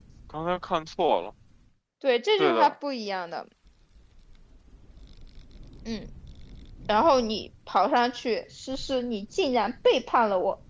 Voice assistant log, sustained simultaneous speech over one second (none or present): none